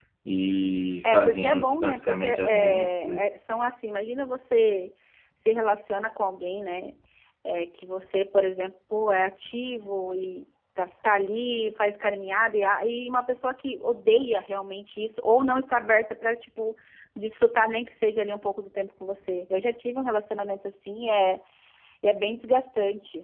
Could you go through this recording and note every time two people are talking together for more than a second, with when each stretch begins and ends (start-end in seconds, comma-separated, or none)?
1.0-3.3